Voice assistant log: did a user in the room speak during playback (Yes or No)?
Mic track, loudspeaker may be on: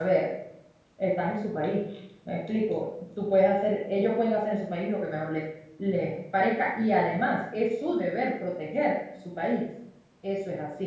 Yes